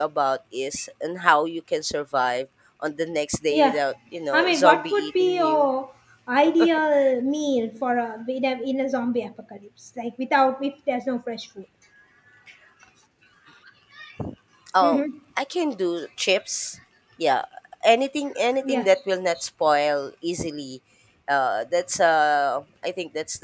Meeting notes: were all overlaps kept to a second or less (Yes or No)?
No